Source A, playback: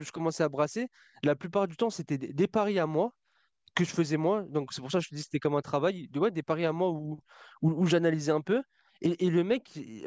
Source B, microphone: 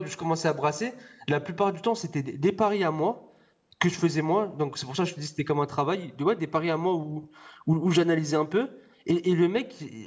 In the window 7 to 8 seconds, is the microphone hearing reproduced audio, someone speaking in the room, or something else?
echo only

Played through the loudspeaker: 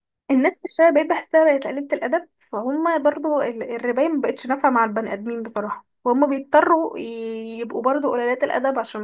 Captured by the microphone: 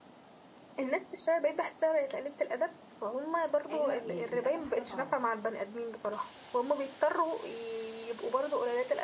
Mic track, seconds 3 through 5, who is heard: both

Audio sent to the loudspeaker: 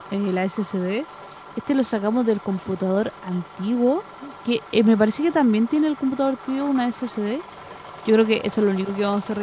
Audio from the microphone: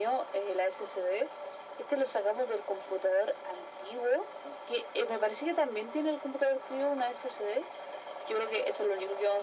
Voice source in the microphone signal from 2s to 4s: echo only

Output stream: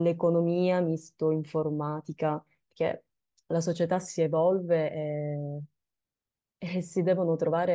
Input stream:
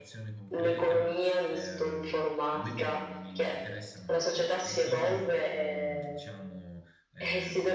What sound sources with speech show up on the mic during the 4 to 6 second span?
both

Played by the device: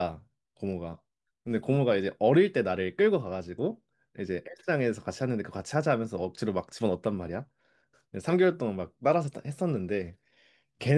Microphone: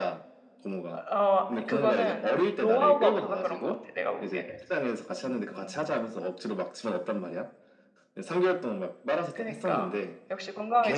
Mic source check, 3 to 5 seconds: both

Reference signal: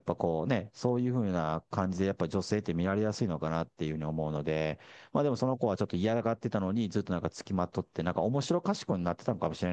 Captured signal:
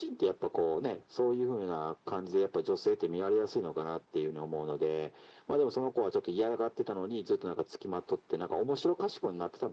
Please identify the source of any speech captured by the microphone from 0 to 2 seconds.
echo only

